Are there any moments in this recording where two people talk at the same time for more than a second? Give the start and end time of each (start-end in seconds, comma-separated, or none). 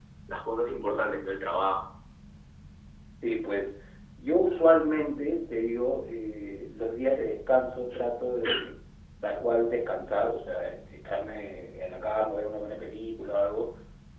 none